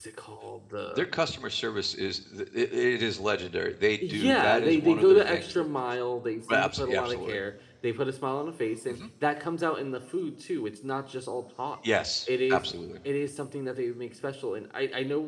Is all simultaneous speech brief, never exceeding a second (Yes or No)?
No